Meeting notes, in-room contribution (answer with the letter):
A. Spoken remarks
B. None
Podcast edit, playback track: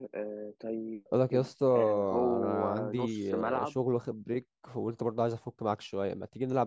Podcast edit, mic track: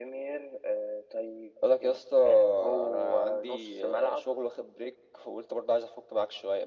B